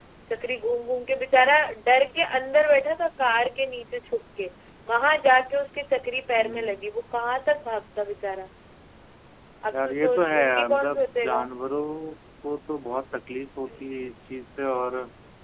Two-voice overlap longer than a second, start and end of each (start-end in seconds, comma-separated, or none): 9.7-11.4